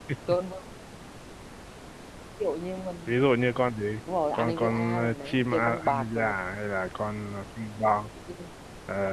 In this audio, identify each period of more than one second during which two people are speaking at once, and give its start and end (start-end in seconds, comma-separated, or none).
4.3-6.3